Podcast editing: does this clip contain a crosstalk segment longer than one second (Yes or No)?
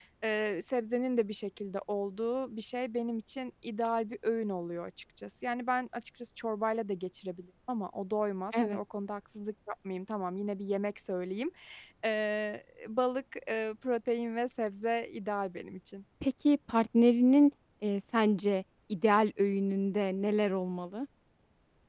No